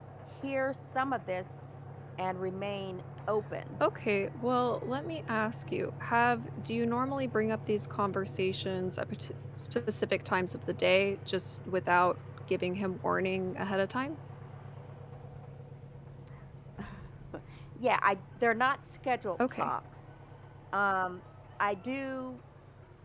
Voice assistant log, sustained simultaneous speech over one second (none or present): none